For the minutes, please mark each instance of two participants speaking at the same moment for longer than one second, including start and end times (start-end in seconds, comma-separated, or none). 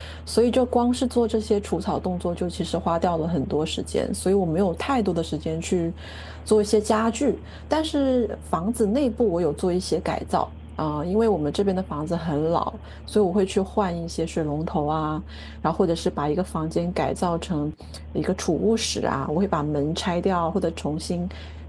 none